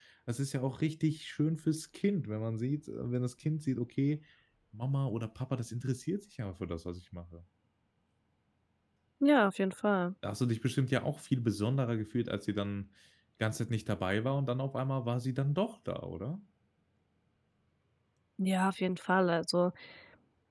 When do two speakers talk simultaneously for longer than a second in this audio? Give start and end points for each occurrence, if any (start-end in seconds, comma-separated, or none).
none